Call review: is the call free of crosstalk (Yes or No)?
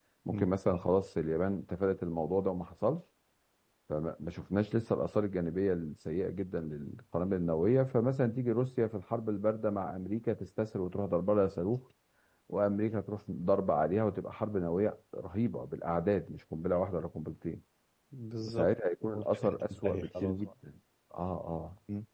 No